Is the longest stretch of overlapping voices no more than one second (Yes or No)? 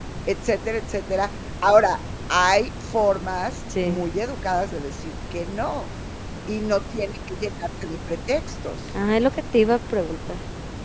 Yes